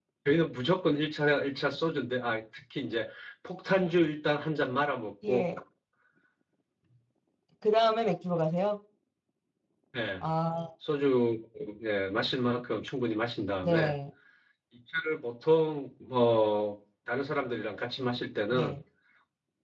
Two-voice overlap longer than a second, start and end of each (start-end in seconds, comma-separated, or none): none